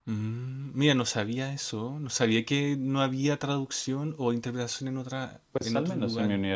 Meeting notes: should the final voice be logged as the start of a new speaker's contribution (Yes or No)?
Yes